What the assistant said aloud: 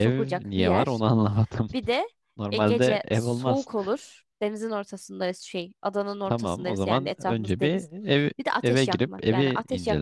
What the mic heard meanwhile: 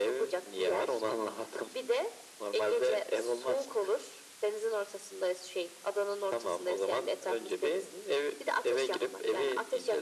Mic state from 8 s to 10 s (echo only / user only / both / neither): echo only